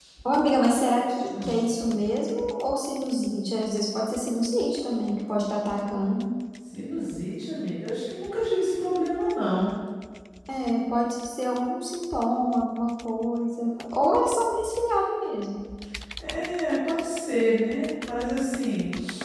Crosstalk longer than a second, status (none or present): none